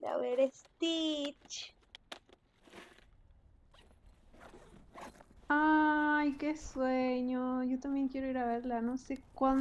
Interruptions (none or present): none